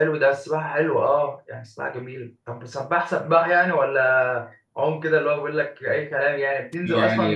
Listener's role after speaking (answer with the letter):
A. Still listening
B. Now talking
B